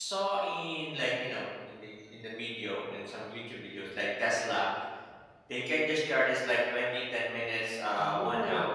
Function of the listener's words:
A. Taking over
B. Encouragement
A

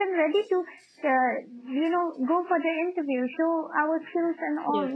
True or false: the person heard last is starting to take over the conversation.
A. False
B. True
A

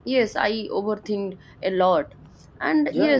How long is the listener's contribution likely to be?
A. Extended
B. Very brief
B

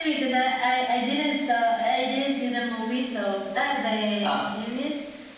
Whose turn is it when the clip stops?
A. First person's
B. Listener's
A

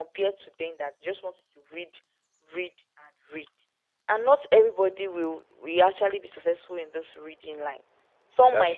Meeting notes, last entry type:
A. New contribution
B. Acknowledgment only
B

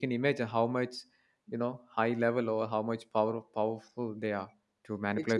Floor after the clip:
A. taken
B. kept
A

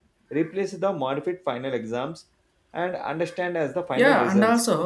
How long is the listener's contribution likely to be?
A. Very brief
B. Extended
B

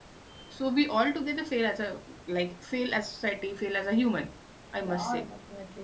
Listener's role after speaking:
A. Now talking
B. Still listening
A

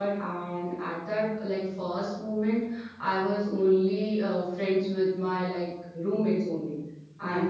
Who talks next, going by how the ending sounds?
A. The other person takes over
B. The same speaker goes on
B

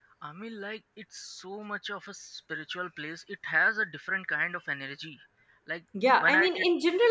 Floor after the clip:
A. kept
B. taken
B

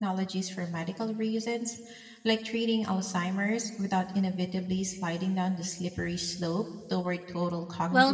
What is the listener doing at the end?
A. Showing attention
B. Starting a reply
B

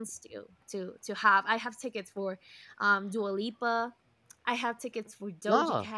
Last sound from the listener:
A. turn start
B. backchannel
B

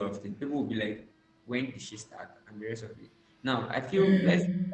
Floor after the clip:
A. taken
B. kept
B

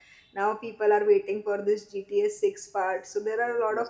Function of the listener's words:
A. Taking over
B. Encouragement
B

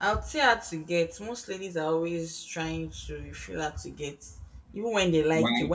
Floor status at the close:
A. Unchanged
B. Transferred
A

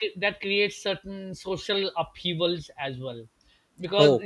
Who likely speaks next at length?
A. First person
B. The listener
A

